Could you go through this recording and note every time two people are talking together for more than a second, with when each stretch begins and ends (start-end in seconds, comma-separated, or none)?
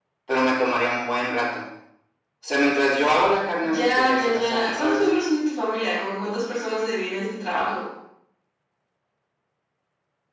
3.7-5.0